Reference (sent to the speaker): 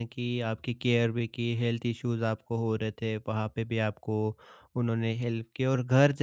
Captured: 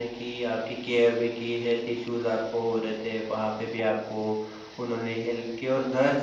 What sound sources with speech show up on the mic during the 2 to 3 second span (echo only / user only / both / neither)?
echo only